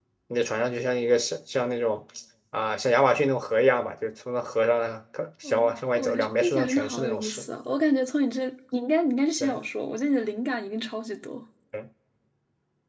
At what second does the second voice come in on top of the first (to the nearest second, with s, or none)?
5 s